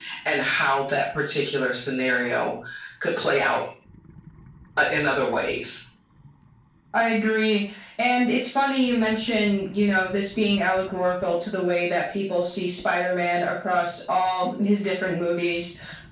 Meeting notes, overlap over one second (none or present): none